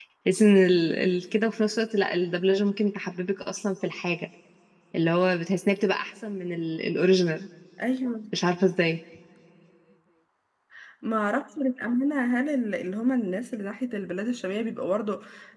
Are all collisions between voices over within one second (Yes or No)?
Yes